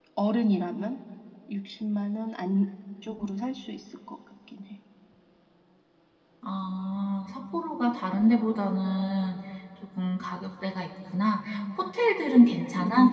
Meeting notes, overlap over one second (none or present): none